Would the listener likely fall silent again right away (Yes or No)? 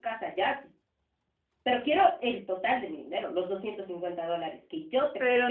No